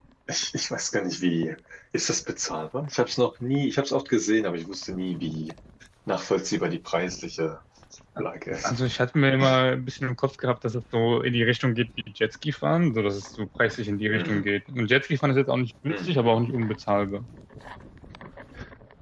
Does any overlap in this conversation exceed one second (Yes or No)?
No